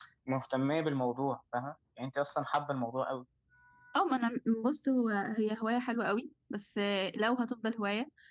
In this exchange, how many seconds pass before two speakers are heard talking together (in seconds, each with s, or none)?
none